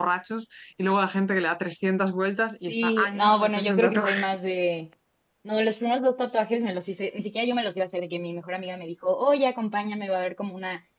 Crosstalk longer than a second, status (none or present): present